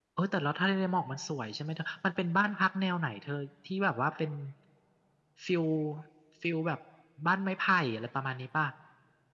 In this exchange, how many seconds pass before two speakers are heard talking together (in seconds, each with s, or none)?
none